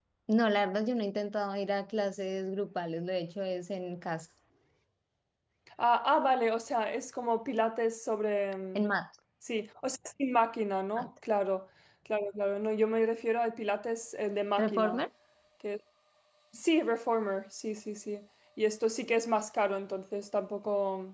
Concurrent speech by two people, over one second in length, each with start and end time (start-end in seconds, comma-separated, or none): none